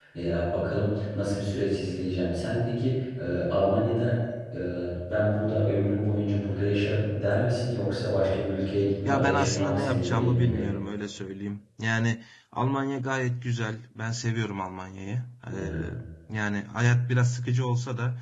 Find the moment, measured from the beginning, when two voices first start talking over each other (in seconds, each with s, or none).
9.1 s